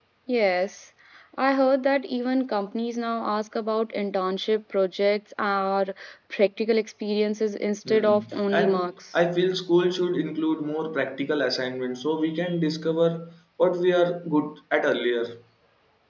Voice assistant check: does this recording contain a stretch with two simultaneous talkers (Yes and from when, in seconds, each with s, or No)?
Yes, from 7.8 s